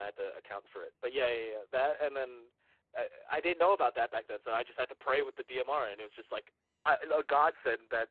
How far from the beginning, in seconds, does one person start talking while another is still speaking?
none

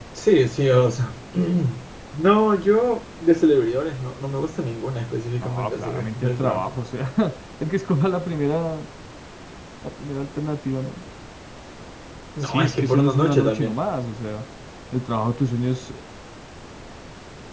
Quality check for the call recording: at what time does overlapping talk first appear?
5.4 s

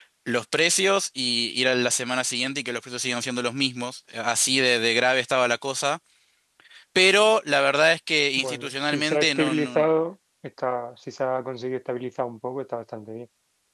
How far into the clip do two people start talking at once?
8.4 s

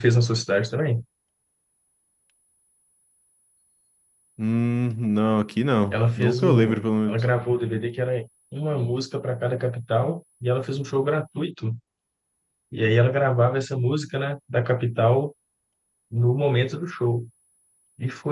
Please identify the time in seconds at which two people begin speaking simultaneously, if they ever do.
5.9 s

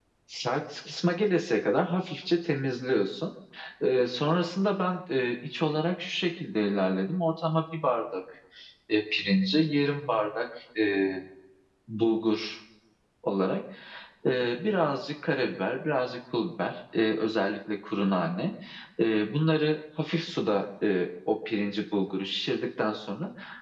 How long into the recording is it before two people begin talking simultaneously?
none

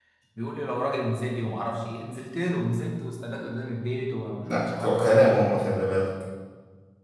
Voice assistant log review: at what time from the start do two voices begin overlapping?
4.4 s

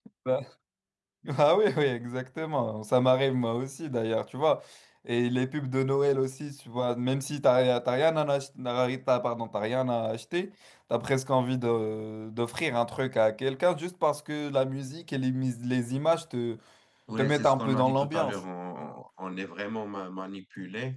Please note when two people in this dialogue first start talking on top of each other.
17.2 s

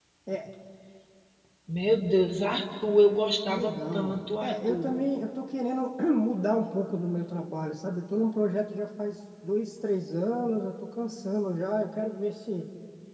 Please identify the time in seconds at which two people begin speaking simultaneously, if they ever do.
3.5 s

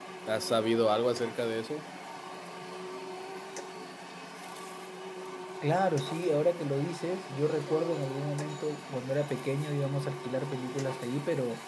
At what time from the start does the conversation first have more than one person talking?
none

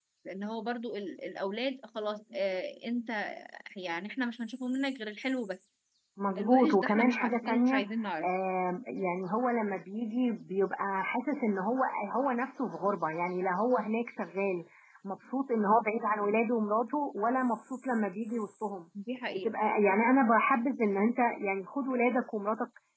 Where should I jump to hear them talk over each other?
6.4 s

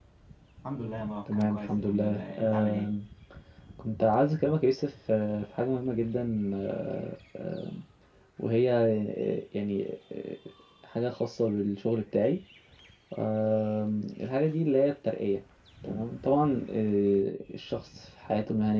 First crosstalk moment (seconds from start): 1.3 s

